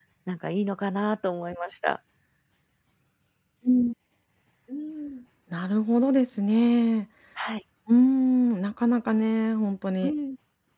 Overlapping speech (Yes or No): No